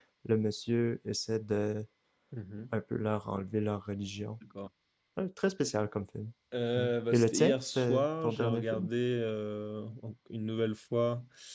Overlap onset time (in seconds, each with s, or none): 6.8 s